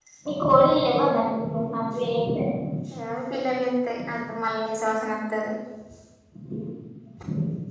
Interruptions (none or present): none